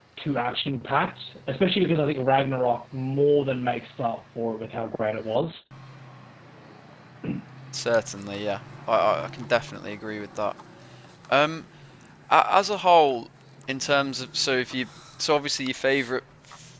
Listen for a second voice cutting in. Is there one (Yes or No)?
No